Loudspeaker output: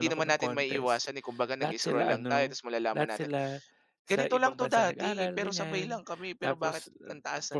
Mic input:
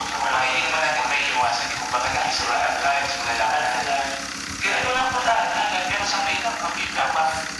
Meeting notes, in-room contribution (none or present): none